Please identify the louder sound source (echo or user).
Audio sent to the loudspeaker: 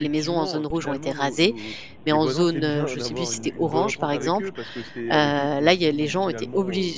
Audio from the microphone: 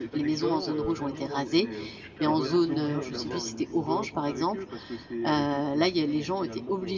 echo